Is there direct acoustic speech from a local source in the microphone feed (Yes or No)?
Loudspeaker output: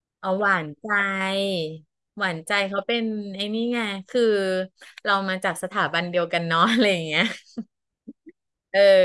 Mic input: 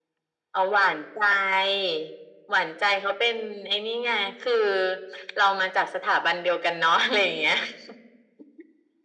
No